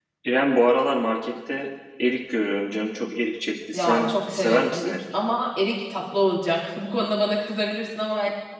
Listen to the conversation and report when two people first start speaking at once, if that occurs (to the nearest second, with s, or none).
4 s